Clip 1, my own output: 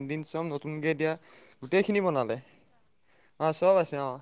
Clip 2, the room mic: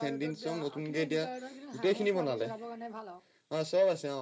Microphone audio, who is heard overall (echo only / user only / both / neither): both